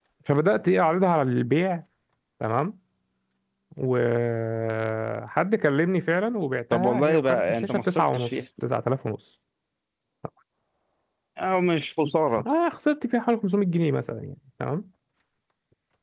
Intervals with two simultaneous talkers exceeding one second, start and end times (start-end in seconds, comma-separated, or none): 6.7-8.3